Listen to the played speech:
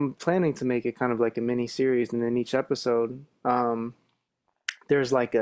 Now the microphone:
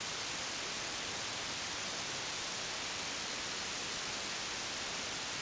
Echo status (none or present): none